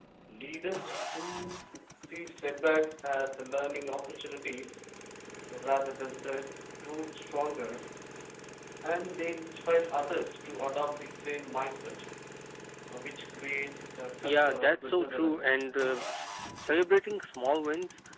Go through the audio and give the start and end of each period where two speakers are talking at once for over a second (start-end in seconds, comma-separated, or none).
14.2-15.5